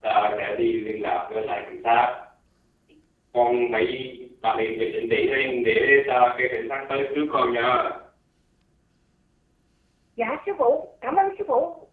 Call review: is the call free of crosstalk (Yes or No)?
Yes